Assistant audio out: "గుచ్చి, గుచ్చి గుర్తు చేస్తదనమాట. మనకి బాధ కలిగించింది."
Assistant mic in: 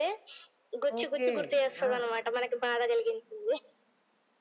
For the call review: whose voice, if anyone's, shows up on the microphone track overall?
both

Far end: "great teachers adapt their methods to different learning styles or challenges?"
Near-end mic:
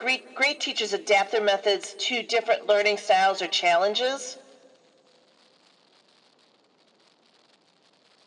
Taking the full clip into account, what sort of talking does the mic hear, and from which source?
echo only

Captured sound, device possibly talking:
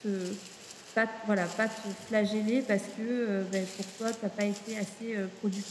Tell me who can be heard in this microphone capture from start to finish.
user only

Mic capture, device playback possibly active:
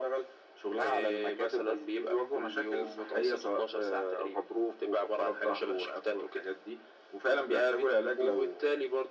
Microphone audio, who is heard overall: echo only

